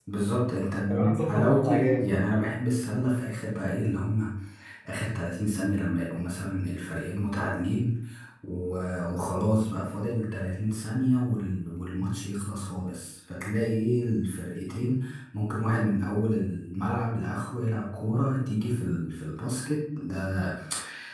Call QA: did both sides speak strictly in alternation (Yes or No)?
No